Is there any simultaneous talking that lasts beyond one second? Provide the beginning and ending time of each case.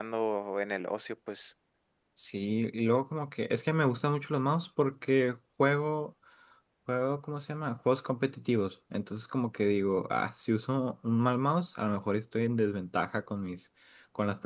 none

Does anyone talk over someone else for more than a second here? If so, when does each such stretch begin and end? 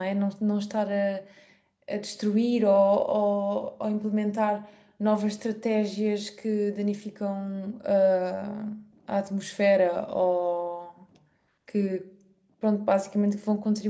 none

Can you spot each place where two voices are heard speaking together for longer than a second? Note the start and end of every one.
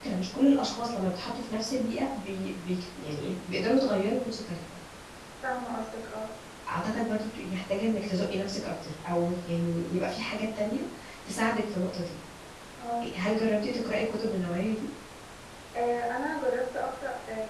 none

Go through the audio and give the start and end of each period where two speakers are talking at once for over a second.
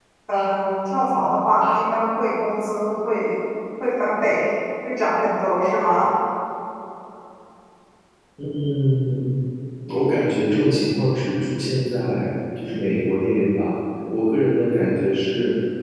none

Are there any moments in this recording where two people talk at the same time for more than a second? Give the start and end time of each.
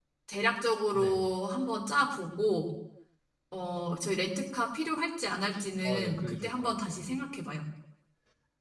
5.8-7.0

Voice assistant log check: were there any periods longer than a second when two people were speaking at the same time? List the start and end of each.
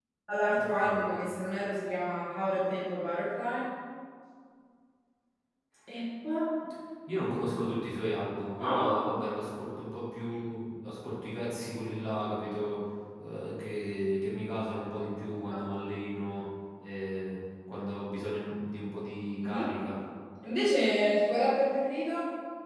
none

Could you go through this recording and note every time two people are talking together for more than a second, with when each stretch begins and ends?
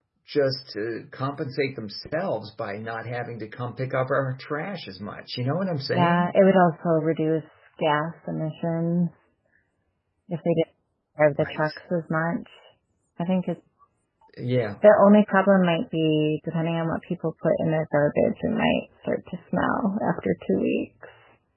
none

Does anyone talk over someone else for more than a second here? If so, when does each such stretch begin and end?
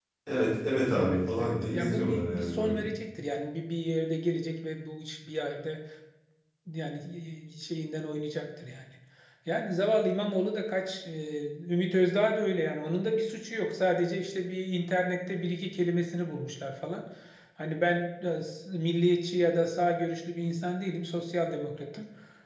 1.0-2.8

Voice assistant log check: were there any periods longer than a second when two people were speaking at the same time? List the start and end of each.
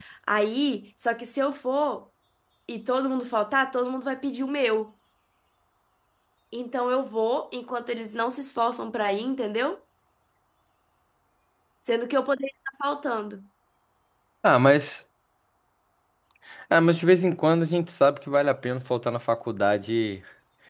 none

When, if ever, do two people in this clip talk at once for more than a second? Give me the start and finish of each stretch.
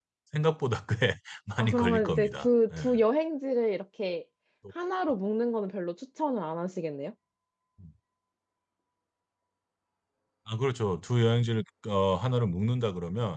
1.6-3.0

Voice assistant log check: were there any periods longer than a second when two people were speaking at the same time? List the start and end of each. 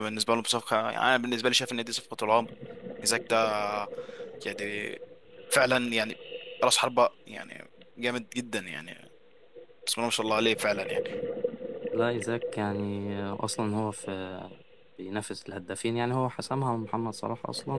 none

